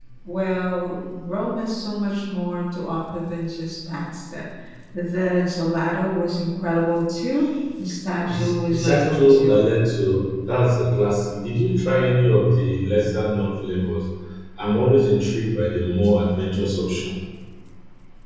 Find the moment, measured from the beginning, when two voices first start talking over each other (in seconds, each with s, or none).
8.3 s